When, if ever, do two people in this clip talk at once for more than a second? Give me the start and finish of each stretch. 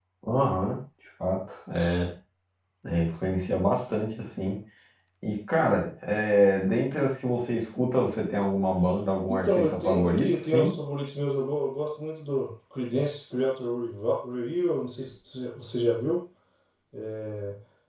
9.3-10.7

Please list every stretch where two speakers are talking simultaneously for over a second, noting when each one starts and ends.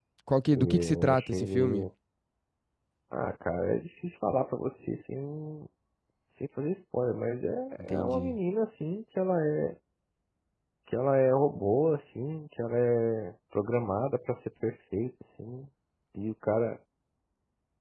0.6-1.9

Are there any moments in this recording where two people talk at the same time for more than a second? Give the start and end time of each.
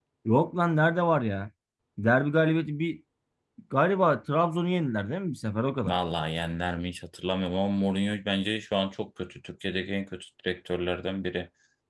none

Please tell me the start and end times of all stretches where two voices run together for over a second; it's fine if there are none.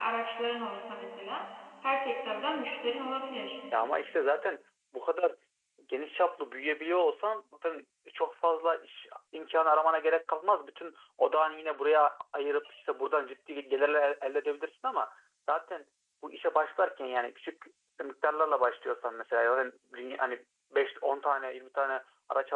none

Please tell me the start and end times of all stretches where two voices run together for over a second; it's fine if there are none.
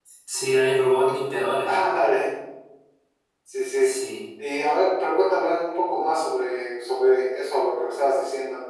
none

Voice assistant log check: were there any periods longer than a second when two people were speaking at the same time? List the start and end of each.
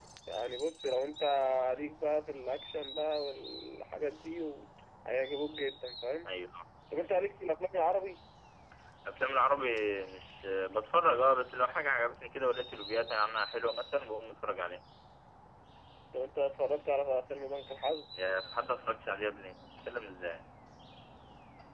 none

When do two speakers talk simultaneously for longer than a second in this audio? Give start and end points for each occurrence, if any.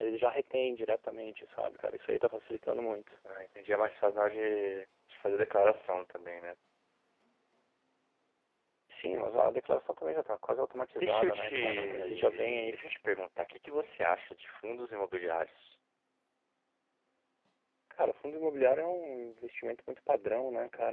11.0-12.7

